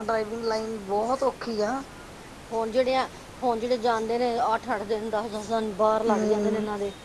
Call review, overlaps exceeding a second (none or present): none